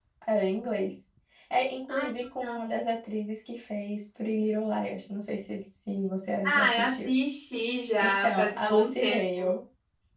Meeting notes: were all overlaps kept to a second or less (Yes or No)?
No